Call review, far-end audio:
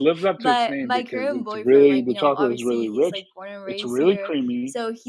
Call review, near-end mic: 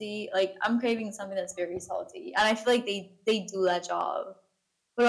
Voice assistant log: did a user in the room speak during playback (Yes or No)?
Yes